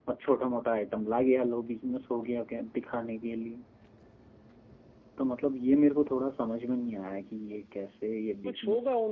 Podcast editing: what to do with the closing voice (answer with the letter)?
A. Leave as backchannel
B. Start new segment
B